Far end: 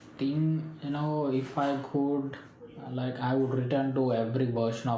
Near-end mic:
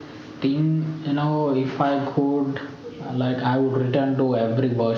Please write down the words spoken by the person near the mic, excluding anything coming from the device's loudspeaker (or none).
none